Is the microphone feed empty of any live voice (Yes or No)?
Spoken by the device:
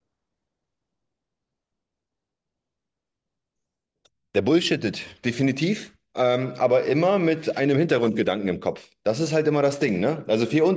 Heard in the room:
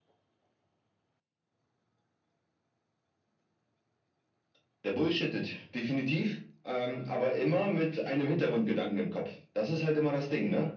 Yes